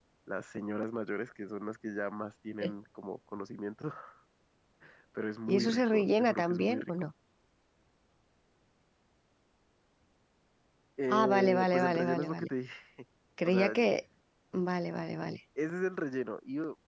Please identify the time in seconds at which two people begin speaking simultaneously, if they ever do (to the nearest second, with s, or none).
5 s